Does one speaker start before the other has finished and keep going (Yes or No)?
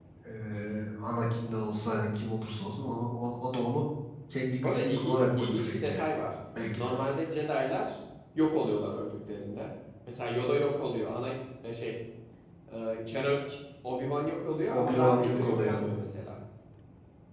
Yes